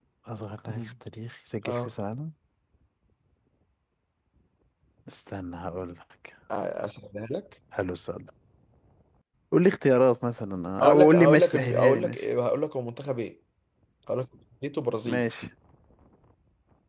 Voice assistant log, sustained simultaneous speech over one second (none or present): present